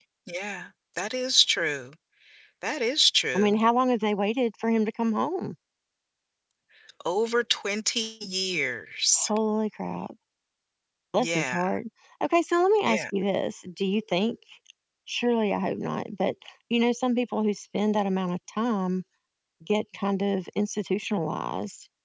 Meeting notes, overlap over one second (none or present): none